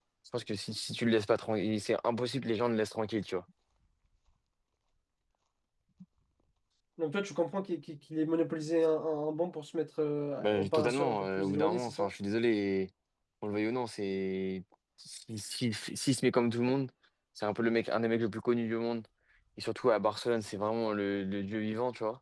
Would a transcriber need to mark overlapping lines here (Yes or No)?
Yes